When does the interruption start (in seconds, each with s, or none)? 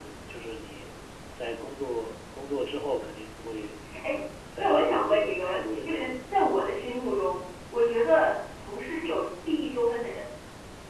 4.6 s